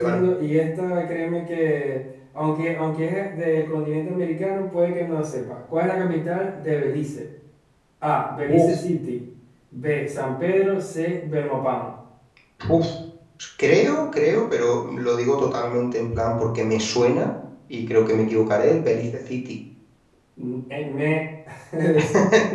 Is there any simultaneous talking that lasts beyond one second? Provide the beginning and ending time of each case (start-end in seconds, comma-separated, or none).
none